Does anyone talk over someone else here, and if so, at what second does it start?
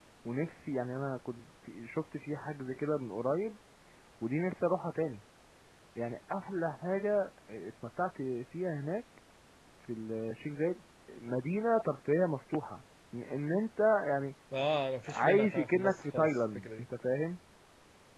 15.1 s

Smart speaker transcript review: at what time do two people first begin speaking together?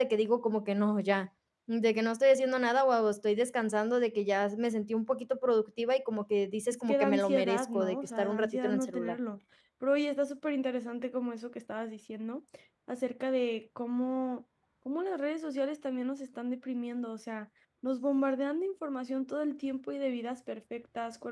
6.7 s

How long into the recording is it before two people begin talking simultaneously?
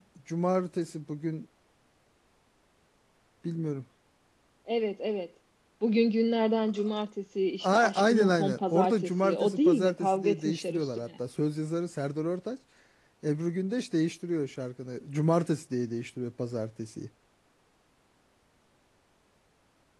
7.6 s

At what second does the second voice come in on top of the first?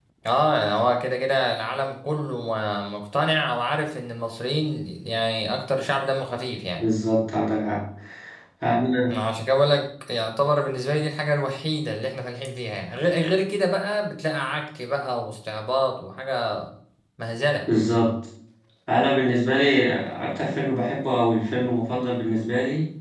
none

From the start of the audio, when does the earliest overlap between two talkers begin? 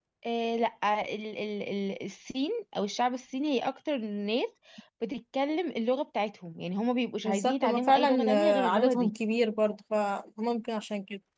7.2 s

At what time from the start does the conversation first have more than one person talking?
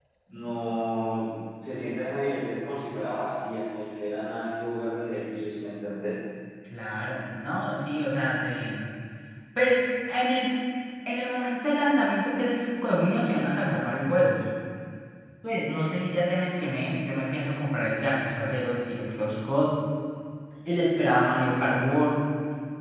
none

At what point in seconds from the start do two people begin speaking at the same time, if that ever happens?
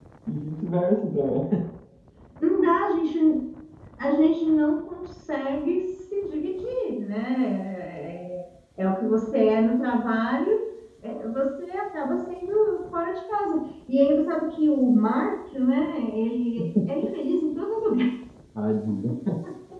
none

